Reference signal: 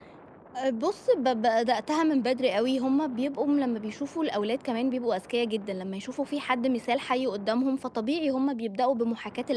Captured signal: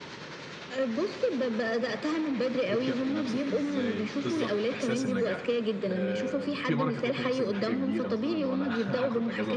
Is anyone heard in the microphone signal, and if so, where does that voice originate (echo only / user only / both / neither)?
both